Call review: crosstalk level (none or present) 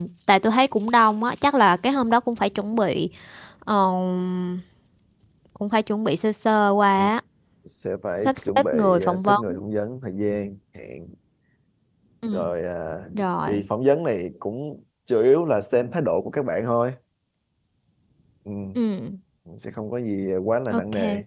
present